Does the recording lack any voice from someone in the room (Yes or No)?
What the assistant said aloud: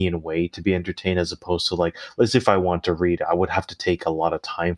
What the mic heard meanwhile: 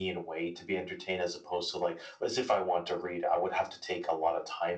Yes